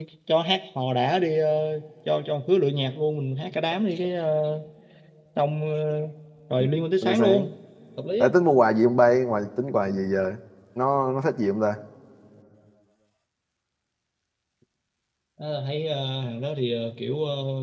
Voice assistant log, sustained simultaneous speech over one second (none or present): none